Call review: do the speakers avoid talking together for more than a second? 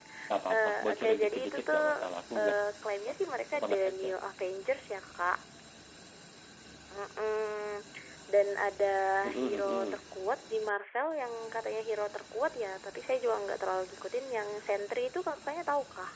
No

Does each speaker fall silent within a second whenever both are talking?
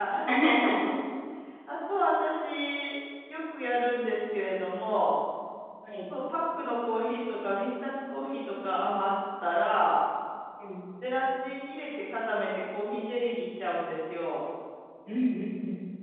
Yes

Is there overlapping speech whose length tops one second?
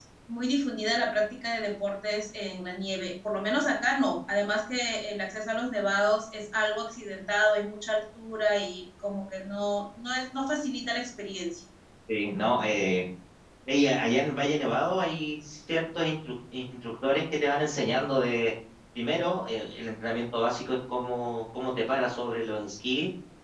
No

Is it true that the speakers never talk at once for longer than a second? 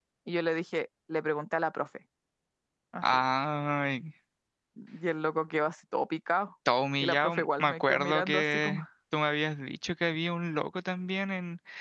No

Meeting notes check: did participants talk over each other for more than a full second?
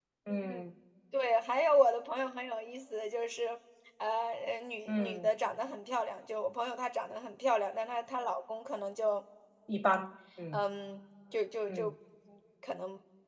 No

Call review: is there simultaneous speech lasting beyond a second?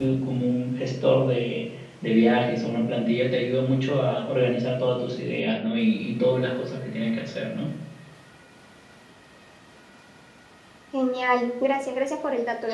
No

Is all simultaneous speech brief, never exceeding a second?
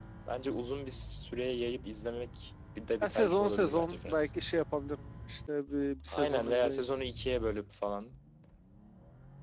No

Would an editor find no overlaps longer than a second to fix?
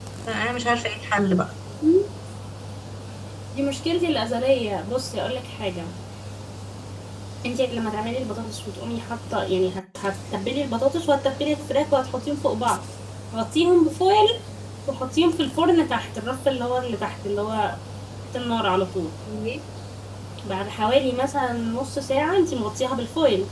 Yes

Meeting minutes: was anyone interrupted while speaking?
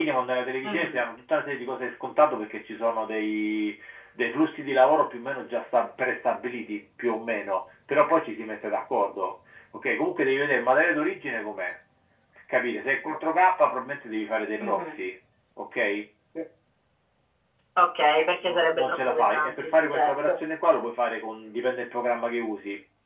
Yes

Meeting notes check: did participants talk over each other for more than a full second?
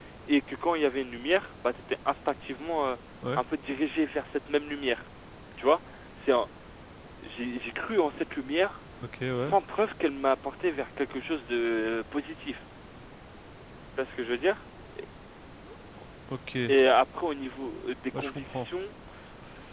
No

